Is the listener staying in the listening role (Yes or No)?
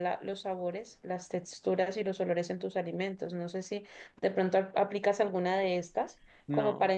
Yes